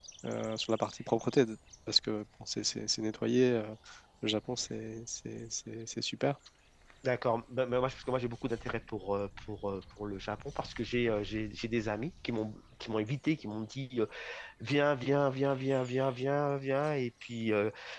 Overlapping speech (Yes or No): No